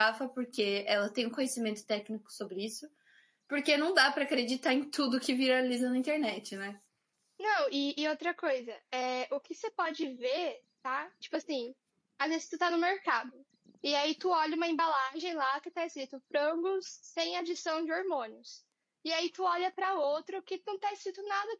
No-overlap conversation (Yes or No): Yes